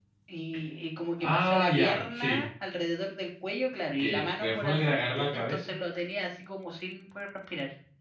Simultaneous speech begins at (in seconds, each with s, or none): 1.2 s